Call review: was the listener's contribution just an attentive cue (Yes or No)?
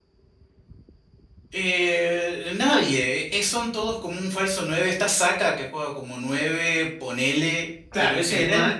No